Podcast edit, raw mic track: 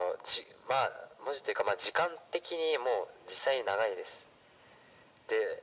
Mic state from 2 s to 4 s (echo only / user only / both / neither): echo only